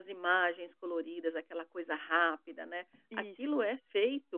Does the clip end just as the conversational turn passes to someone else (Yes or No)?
No